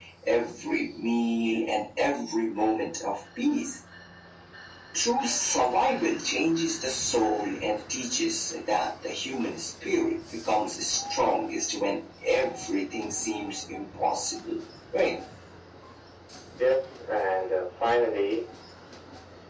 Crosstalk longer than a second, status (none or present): none